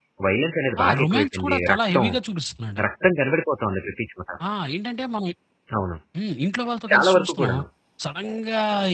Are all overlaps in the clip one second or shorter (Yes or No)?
No